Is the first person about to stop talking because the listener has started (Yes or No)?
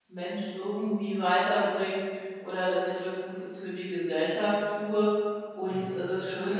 No